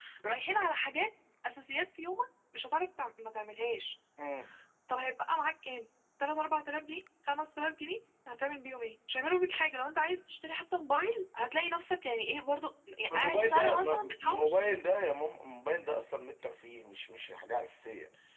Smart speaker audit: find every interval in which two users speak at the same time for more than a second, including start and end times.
13.1-14.6

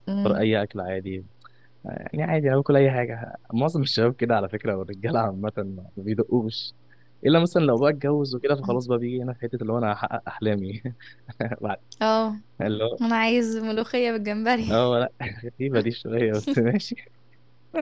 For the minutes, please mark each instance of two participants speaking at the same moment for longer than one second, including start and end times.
none

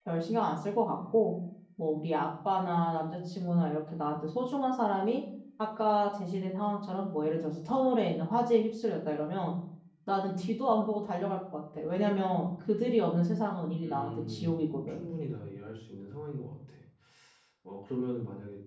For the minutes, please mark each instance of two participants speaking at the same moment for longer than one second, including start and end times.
13.8-15.0

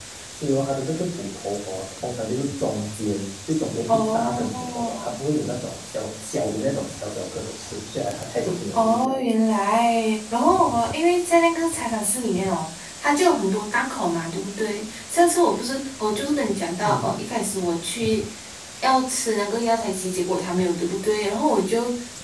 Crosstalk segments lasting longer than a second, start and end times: 3.9-5.1

